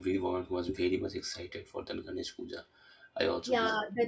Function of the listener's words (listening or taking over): taking over